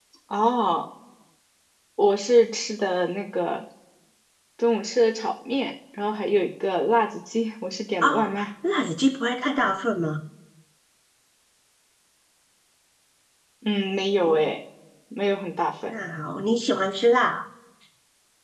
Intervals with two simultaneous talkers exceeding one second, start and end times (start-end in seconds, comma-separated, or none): none